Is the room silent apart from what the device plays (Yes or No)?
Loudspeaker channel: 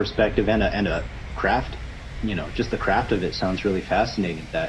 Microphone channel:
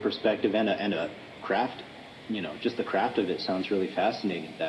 Yes